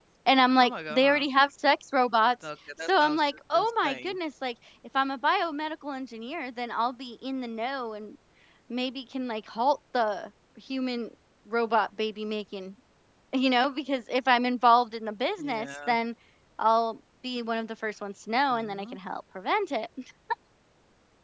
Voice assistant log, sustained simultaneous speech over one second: present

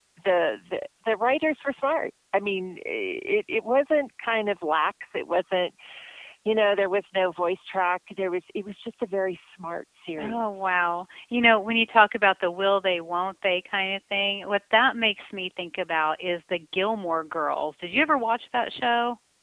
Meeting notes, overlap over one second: none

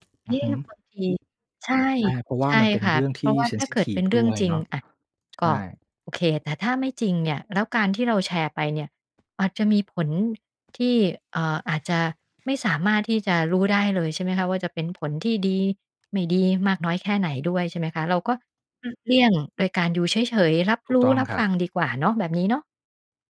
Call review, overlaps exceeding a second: present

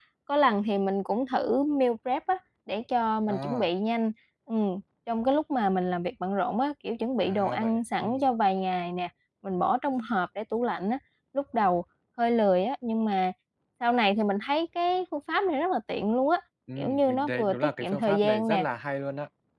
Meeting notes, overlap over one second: present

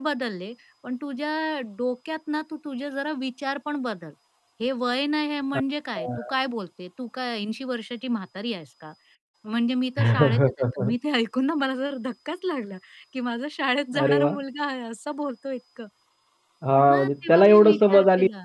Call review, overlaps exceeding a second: present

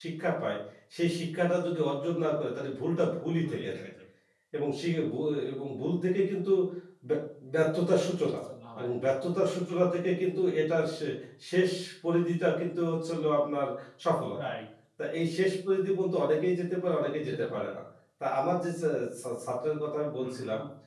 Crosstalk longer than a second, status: none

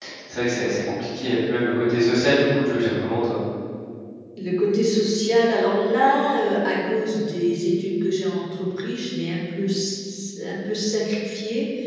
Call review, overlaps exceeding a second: none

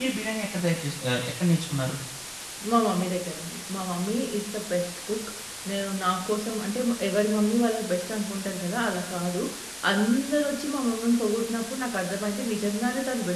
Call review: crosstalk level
none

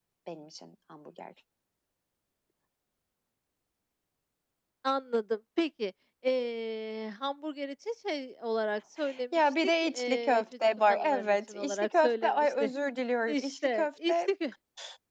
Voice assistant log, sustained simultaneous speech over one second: present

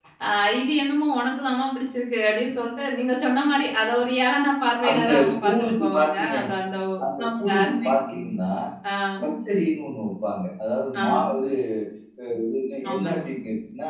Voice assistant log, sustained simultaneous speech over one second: present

